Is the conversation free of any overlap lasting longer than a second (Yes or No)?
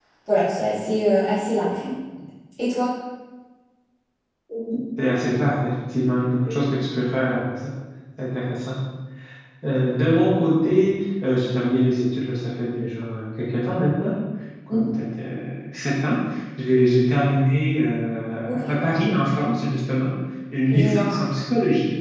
Yes